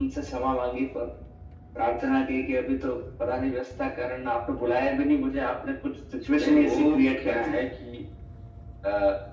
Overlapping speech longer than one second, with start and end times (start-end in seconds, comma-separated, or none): 6.3-7.6